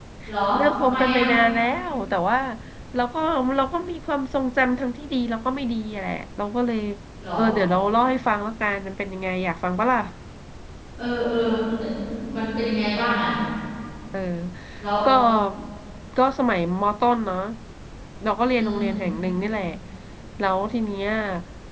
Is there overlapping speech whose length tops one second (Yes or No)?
No